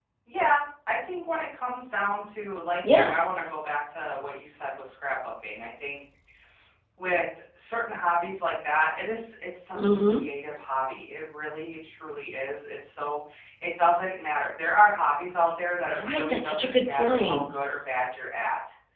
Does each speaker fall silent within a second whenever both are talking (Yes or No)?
No